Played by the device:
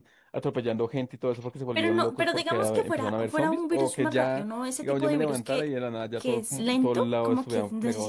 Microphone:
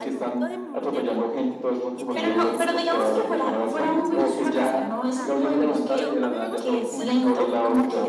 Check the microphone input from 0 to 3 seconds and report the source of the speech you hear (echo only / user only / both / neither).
both